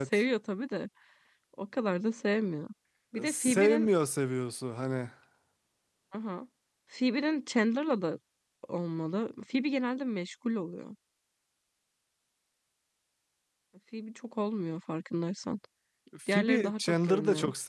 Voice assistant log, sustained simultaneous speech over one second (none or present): present